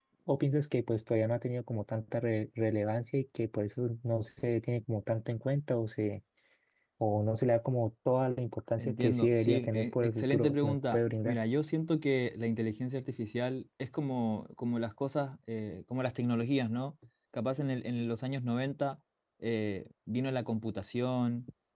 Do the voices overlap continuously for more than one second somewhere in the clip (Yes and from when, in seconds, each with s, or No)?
Yes, from 8.8 s